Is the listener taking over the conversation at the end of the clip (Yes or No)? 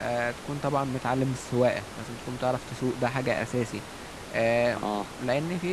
No